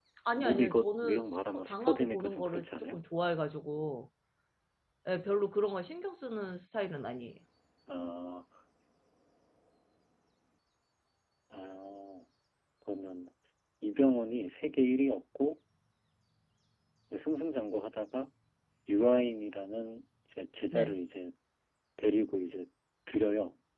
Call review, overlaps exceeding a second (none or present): present